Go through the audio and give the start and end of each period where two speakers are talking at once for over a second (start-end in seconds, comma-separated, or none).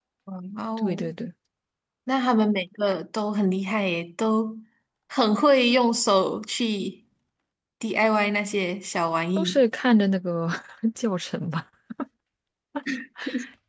none